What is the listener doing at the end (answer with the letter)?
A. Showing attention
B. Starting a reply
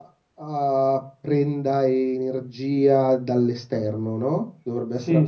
B